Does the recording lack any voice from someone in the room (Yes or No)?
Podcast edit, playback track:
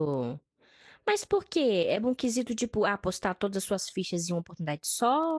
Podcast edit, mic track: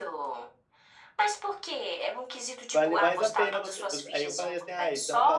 No